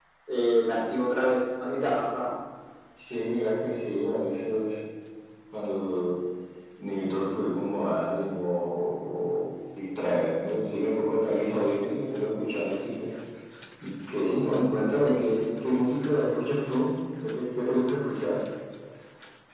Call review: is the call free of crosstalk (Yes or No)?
Yes